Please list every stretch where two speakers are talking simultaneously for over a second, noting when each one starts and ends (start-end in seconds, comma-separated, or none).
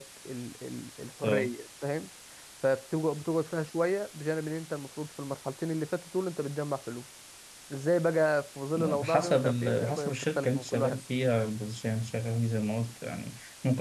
8.8-11.0